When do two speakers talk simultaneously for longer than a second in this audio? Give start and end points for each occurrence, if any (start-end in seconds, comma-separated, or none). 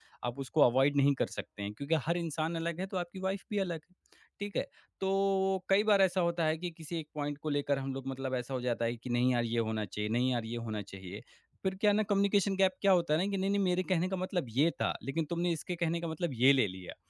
none